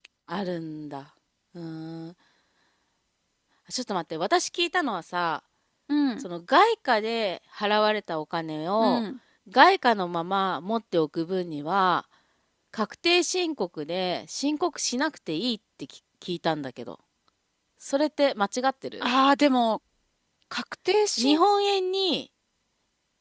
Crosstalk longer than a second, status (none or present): none